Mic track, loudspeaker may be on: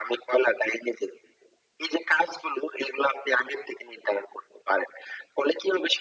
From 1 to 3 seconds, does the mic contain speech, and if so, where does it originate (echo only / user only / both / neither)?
echo only